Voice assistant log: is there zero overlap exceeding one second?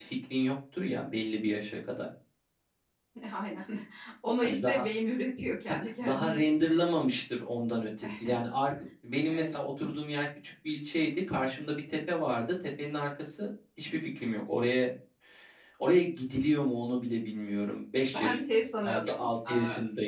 No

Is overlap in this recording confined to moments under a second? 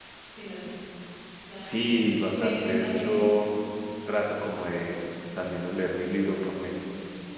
No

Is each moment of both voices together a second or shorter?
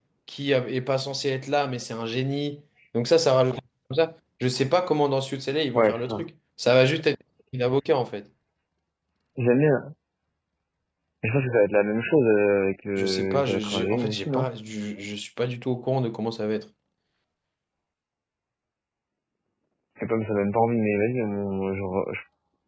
No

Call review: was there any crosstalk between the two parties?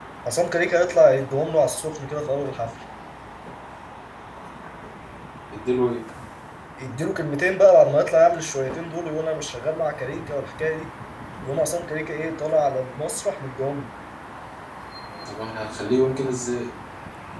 No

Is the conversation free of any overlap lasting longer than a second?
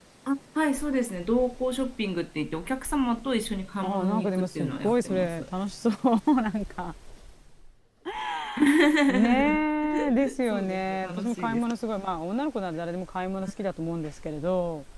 No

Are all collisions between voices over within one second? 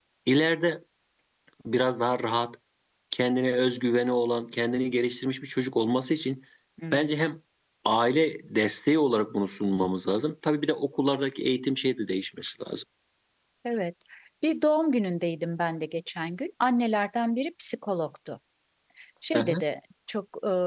Yes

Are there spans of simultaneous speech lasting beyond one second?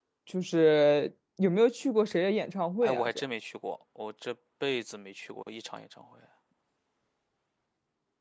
No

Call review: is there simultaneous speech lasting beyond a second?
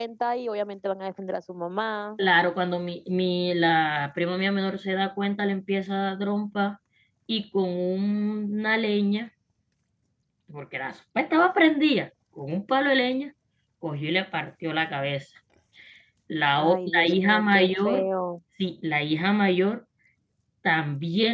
Yes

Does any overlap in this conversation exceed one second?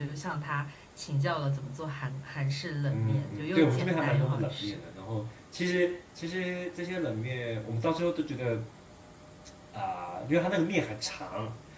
Yes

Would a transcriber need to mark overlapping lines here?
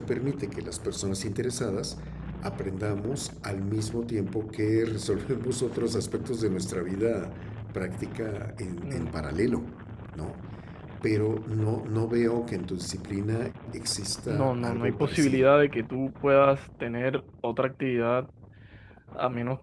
Yes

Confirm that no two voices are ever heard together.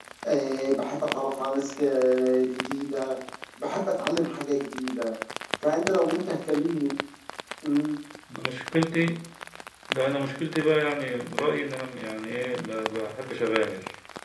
Yes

